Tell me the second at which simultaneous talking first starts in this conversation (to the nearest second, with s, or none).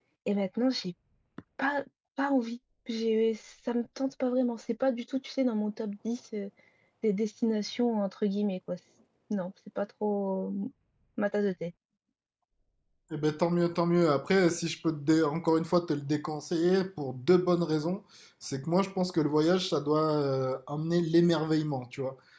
none